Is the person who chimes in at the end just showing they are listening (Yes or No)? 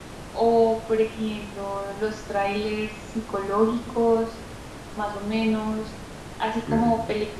Yes